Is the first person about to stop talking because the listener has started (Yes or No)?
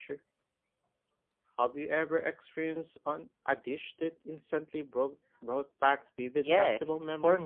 Yes